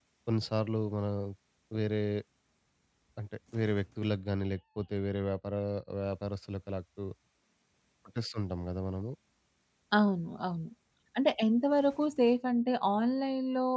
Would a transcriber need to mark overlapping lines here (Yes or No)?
No